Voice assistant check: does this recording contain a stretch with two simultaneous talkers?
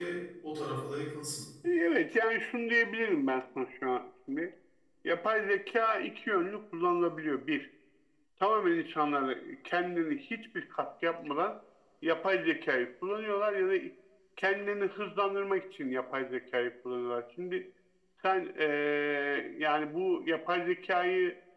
No

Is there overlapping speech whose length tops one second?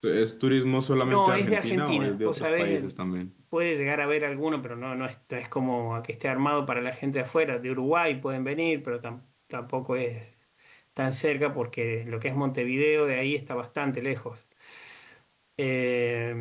Yes, from 1.0 s

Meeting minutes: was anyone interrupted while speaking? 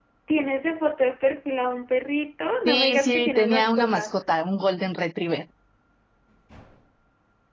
Yes, from 2.6 s

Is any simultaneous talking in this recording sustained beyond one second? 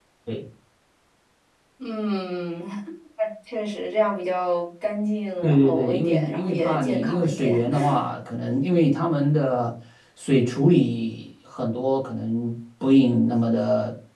Yes, from 5.4 s

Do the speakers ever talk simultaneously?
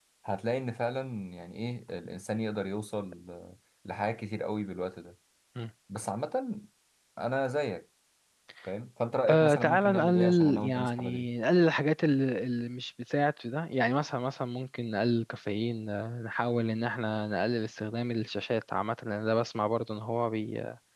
Yes, from 9.3 s

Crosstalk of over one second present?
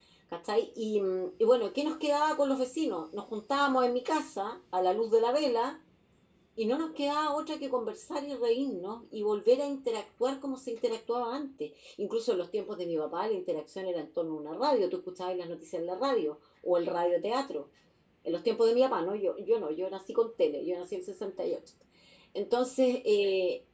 No

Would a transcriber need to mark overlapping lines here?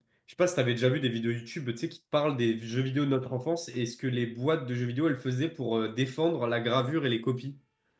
No

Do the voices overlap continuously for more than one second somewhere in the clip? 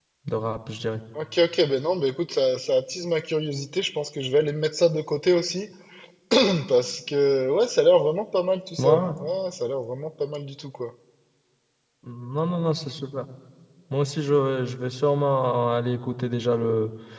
No

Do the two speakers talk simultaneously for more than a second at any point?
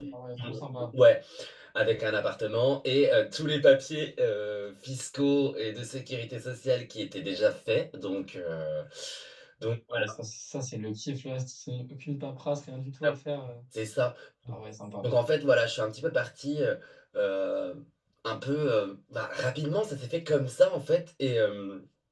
No

